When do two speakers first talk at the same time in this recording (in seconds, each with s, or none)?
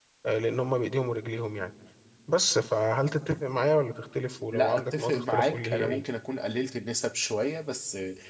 4.5 s